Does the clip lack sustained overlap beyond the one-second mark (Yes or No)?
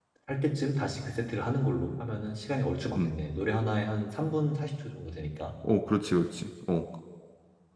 Yes